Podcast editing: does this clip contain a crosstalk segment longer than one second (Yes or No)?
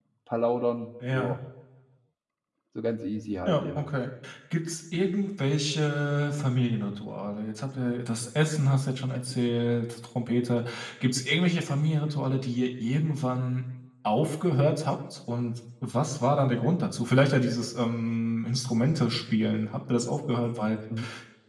No